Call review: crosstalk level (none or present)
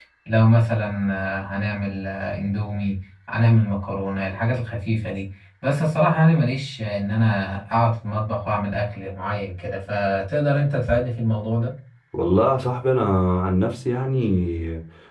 none